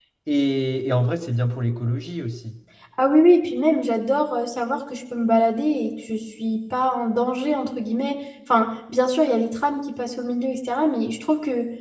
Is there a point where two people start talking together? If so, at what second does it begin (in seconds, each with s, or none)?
none